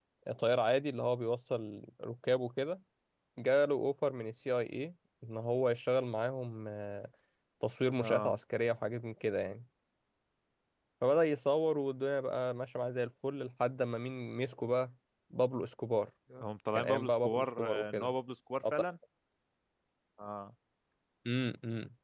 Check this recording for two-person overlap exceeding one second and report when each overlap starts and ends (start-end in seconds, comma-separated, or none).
16.8-18.1